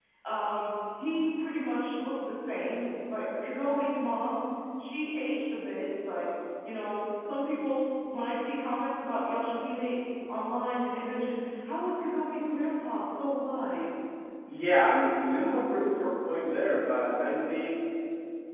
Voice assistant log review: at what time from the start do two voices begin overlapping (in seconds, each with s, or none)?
none